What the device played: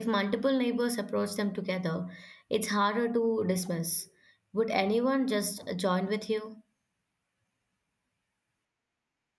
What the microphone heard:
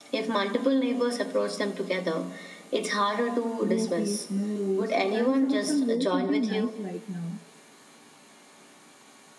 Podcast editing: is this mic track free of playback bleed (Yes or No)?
No